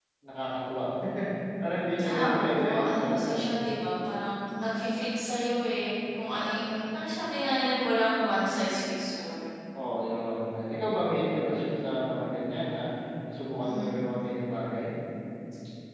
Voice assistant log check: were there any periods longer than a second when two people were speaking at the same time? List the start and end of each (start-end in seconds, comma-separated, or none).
2.1-3.6